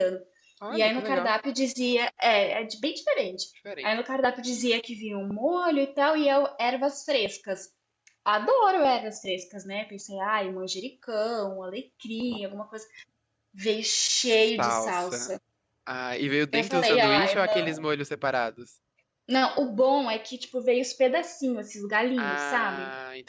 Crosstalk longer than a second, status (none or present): present